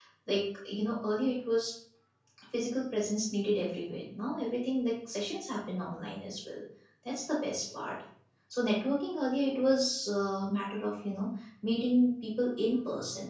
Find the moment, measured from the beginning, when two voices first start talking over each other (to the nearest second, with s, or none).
none